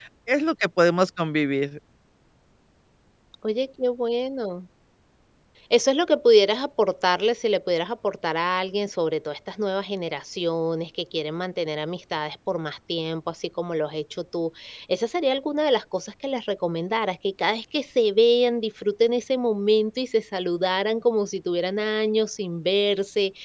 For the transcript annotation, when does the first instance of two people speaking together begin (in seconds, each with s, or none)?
none